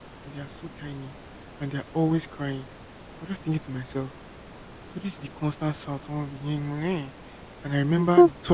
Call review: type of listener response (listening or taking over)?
listening